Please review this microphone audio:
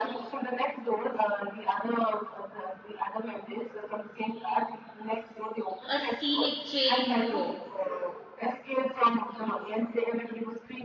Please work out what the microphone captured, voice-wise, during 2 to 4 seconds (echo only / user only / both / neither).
echo only